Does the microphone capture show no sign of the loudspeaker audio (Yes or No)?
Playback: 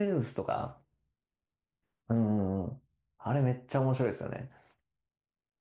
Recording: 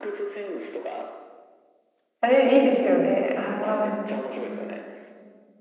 No